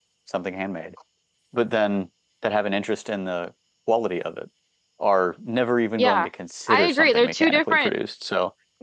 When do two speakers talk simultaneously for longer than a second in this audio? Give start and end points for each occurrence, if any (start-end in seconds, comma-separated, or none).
6.7-7.9